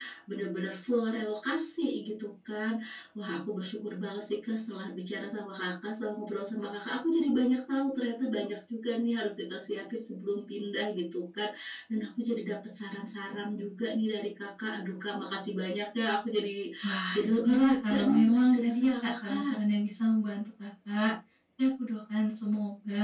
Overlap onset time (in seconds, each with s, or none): 17.1 s